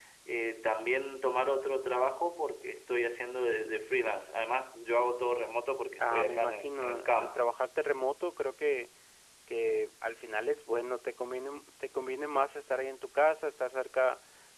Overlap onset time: 6 s

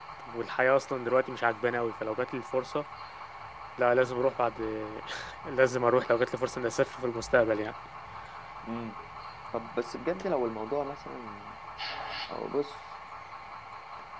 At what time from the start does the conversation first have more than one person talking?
none

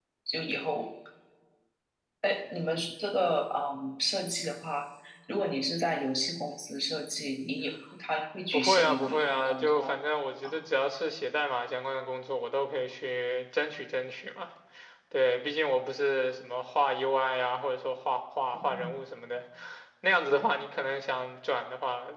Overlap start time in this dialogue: 9 s

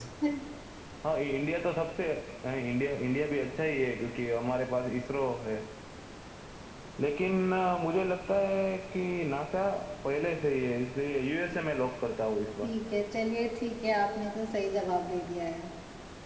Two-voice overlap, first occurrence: none

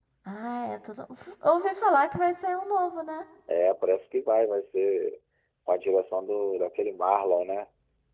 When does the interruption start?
none

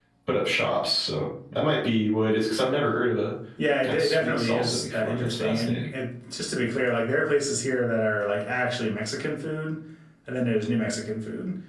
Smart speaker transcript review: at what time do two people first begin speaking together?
4 s

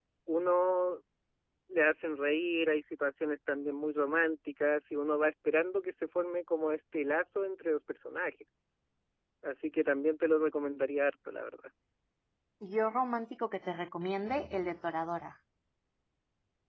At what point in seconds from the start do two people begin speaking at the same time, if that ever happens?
none

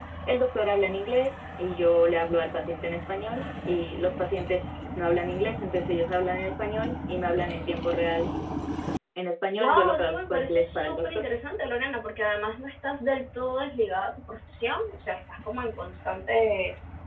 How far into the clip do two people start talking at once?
10 s

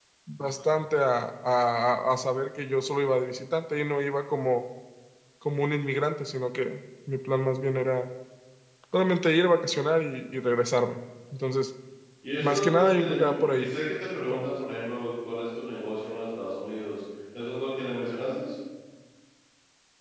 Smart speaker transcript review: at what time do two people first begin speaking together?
12 s

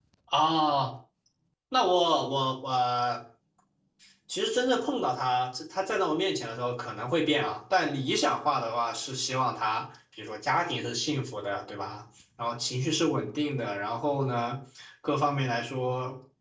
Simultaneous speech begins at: none

